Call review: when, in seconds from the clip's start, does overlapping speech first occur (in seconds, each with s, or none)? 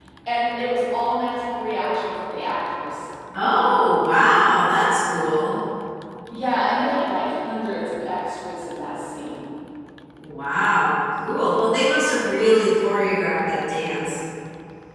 none